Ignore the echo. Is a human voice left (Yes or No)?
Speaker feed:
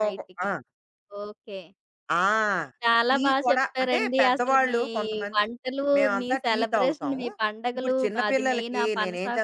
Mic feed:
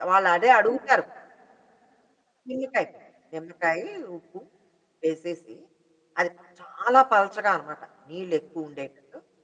Yes